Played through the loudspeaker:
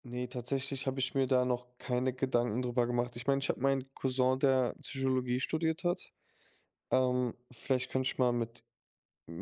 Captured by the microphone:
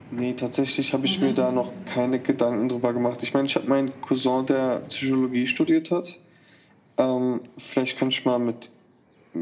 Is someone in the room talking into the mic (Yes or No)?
Yes